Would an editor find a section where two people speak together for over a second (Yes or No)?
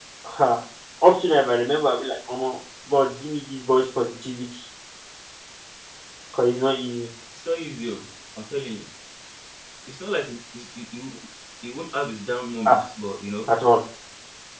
No